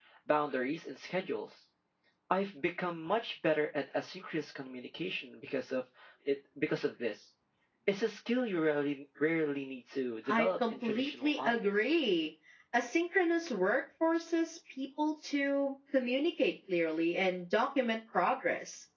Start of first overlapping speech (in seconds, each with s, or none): 10.3 s